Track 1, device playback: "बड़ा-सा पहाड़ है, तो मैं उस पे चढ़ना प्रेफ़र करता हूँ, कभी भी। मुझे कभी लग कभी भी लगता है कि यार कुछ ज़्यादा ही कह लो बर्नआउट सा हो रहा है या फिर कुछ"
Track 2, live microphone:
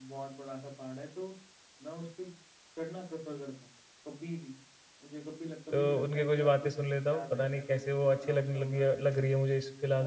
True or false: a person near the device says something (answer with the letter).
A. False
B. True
B